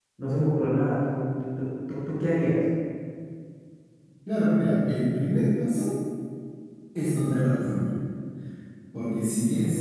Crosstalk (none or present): none